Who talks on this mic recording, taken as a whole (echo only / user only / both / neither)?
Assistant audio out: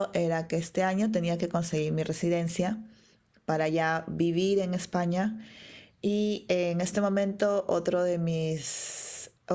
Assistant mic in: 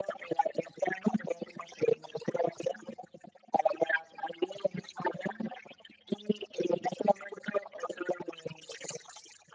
echo only